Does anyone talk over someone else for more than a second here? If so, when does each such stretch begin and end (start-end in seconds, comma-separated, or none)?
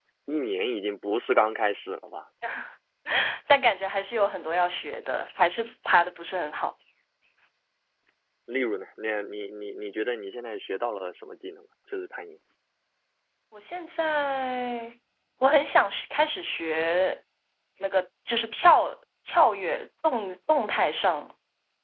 none